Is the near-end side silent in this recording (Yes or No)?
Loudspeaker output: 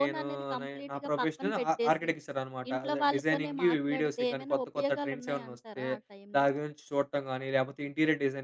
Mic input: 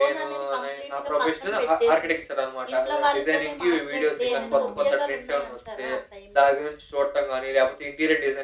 No